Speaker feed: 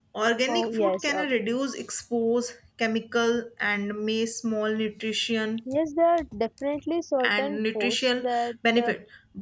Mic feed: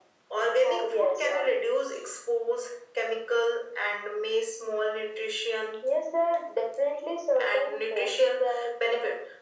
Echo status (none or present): present